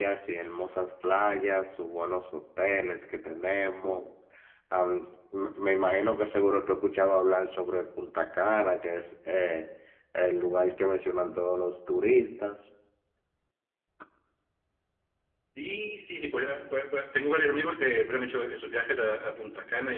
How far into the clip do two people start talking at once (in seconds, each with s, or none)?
none